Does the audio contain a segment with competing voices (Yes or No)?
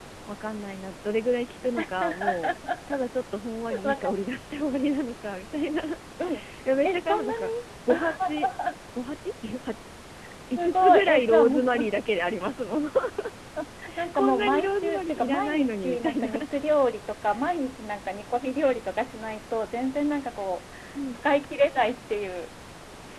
Yes